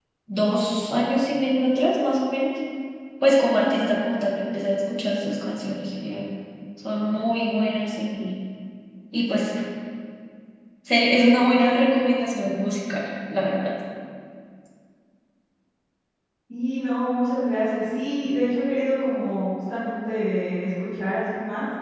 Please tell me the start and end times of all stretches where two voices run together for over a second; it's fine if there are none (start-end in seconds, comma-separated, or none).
none